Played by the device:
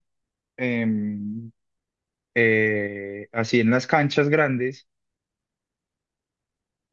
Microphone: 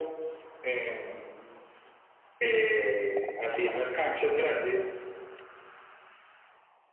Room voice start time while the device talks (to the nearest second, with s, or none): none